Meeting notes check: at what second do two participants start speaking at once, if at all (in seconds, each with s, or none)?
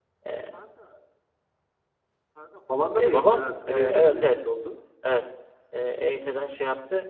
3.0 s